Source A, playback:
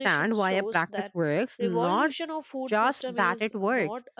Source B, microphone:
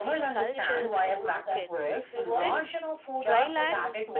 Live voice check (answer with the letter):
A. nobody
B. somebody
B